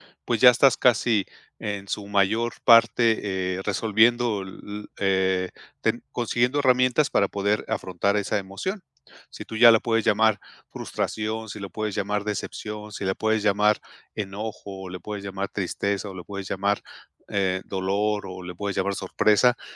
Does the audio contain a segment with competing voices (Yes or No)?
No